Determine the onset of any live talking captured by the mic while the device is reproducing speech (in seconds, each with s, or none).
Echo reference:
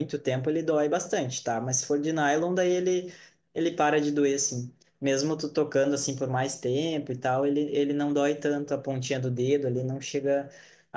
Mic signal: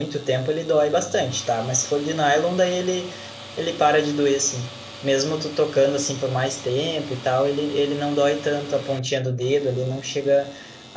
none